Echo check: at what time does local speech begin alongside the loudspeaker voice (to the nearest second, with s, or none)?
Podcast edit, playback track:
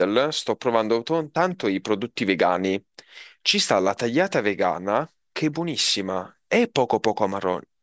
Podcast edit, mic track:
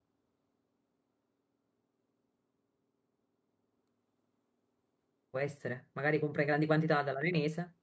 5 s